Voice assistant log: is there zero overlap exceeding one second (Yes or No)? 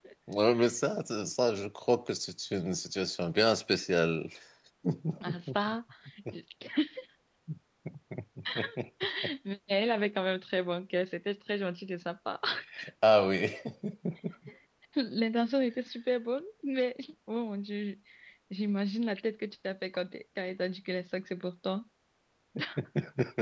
Yes